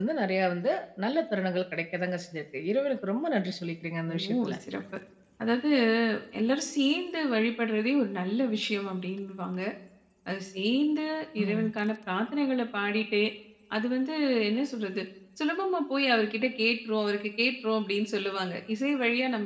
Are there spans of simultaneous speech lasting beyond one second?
No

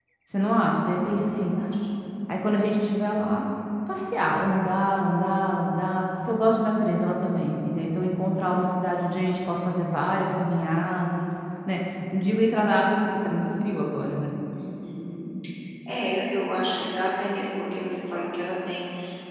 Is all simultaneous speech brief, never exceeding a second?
Yes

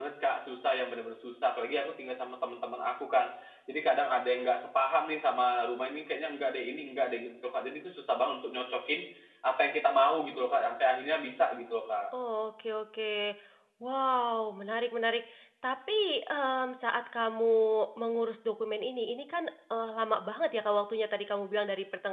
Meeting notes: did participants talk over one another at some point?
No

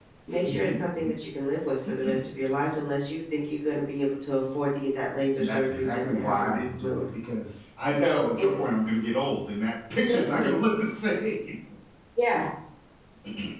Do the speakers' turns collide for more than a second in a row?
Yes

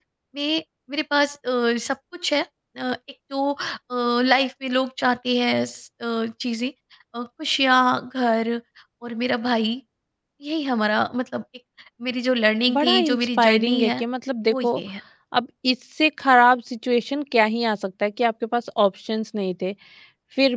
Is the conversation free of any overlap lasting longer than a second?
No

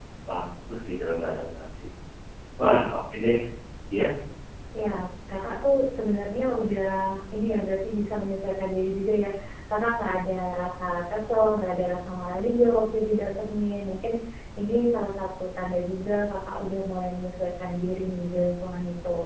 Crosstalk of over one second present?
No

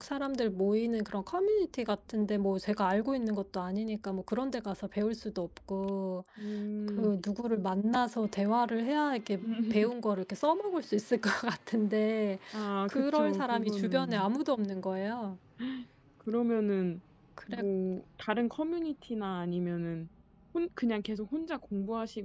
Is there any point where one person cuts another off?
Yes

